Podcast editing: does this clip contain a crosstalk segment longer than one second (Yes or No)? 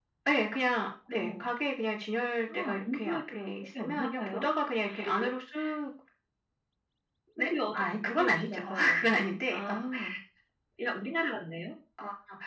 Yes